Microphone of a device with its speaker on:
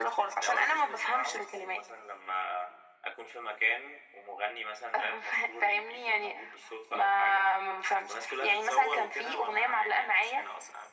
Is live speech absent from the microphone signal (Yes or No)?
Yes